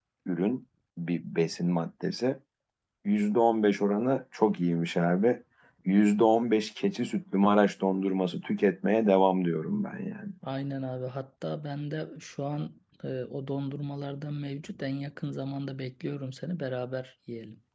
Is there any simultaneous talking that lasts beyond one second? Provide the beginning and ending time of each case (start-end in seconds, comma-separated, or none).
none